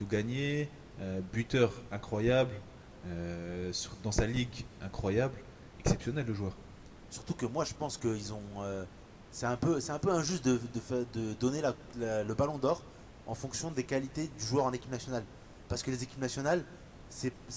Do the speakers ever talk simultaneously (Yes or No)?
No